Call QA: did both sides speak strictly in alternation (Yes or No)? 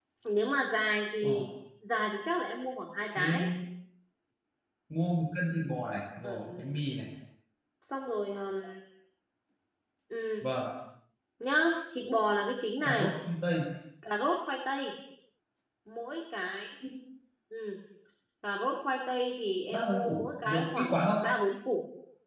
No